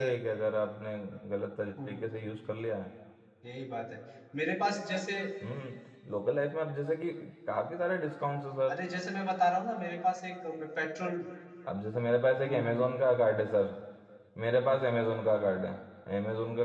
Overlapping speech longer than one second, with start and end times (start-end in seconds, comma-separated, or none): none